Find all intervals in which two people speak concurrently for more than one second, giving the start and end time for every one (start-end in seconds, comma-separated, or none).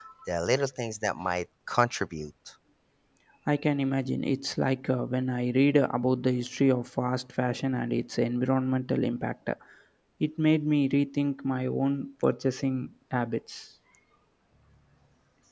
none